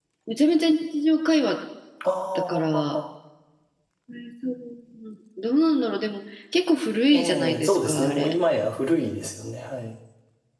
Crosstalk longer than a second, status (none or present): present